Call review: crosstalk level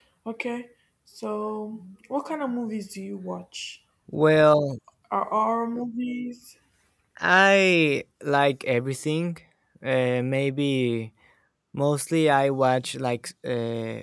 none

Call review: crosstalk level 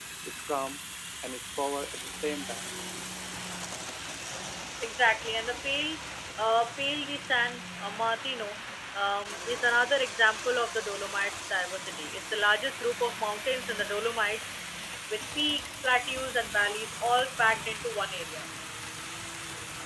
none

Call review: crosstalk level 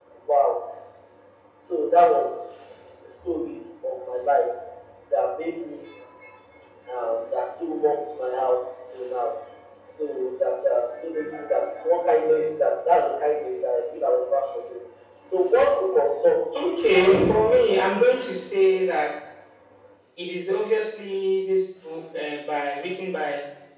present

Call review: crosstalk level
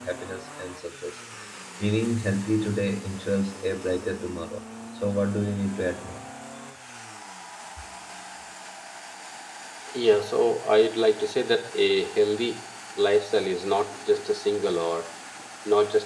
none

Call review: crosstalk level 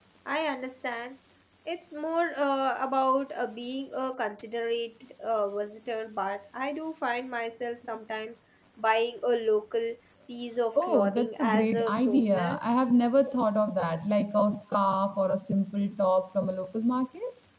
present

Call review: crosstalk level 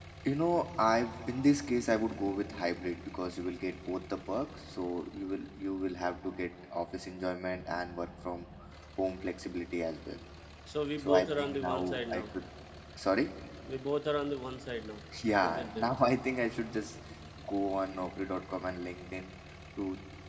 present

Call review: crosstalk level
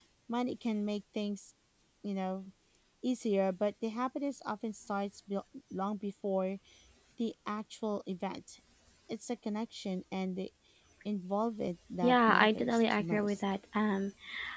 present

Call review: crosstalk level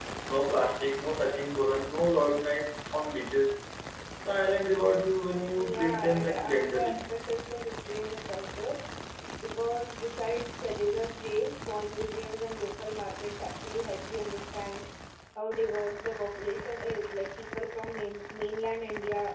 present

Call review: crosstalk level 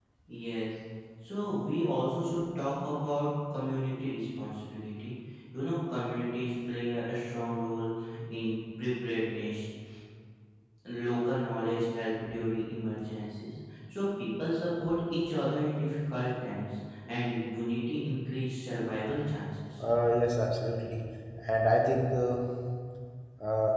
none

